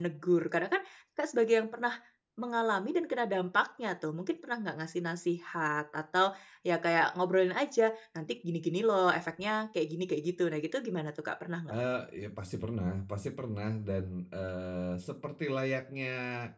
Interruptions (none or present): none